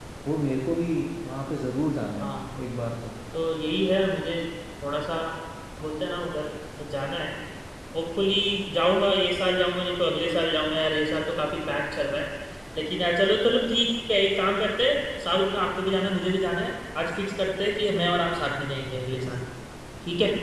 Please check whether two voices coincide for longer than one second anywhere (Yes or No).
No